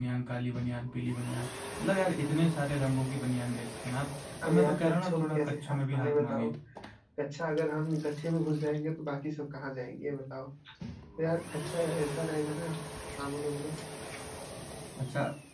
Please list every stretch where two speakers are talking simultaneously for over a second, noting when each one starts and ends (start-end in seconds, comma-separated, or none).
4.4-6.5